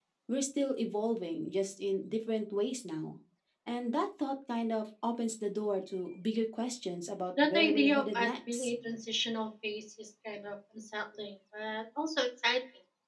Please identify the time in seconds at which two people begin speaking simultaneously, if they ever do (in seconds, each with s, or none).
7.4 s